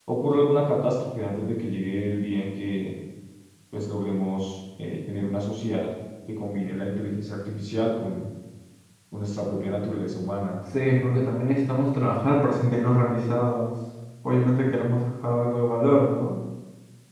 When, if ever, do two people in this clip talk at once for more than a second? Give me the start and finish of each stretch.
none

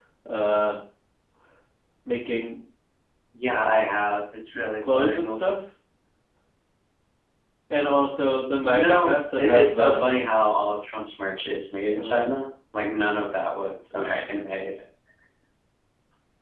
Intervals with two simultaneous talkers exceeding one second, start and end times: 8.6-10.0

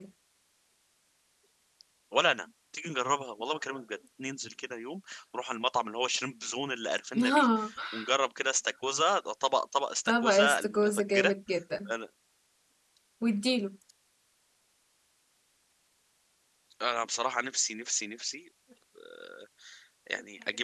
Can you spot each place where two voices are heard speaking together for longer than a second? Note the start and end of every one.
10.1-11.3

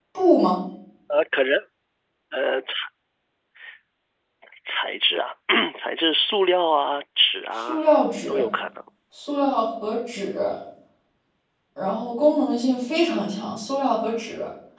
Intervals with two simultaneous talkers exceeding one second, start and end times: none

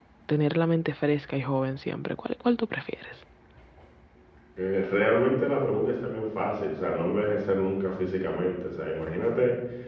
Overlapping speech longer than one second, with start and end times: none

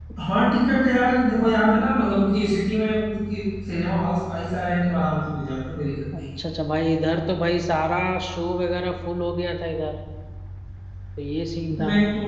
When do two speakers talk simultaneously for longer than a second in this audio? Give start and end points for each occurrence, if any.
none

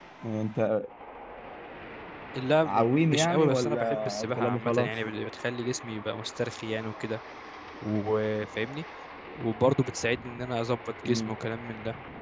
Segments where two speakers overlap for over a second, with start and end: 2.6-4.9

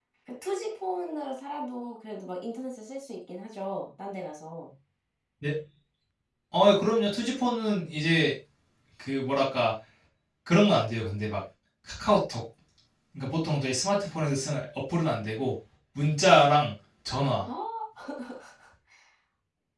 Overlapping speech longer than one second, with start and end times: none

